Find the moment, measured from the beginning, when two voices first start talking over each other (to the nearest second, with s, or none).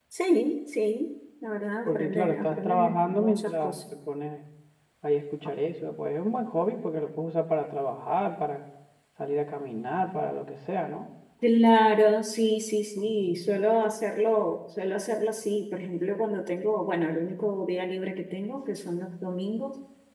2 s